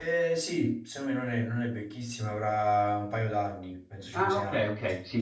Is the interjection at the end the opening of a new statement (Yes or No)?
Yes